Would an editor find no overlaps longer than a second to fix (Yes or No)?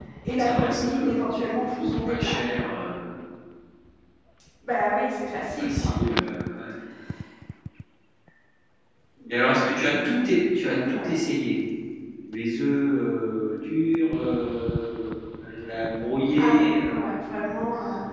No